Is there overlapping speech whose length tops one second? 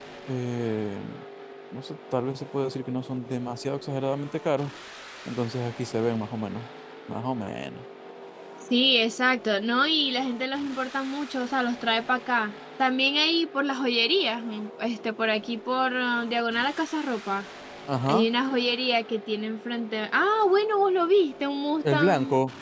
No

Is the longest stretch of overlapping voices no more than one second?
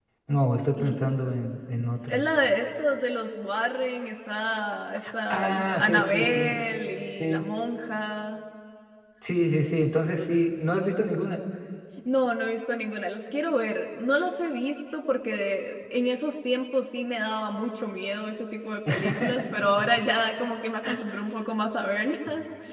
No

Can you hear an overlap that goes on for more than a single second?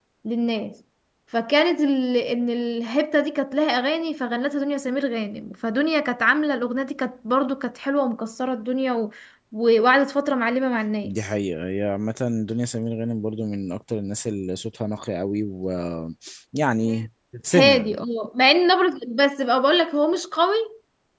No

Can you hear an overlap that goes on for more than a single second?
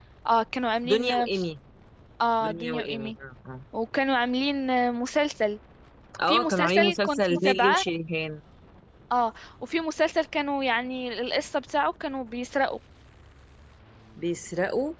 Yes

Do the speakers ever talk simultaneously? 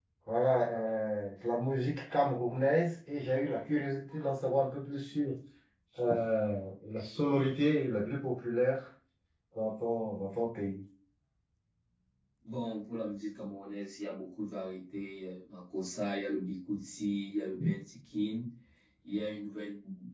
No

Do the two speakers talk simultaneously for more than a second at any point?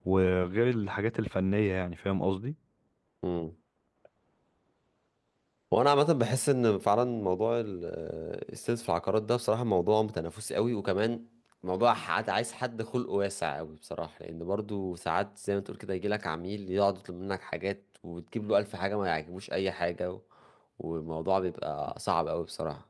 No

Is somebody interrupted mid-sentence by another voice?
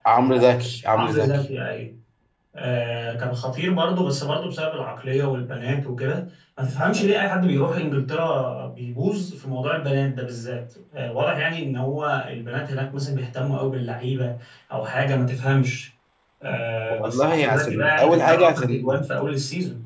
Yes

